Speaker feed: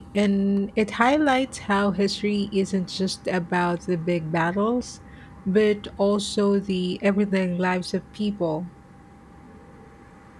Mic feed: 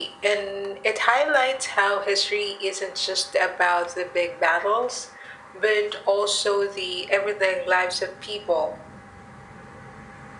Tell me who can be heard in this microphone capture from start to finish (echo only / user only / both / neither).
echo only